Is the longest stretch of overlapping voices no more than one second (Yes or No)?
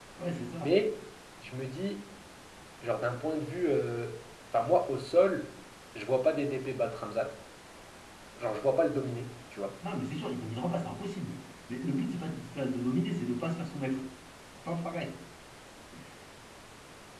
Yes